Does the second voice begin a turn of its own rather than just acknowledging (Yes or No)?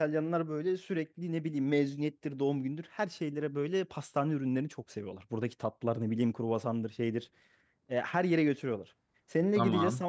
No